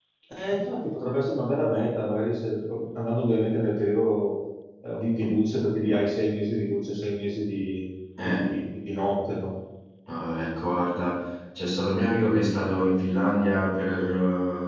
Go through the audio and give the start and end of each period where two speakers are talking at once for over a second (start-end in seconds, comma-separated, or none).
none